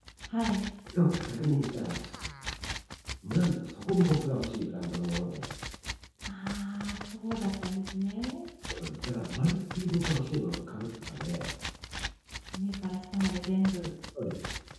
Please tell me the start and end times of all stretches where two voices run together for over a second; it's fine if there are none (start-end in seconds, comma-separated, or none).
none